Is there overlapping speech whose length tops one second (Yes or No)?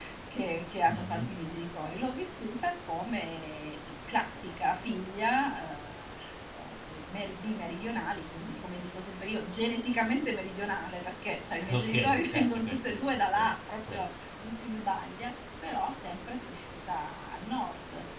Yes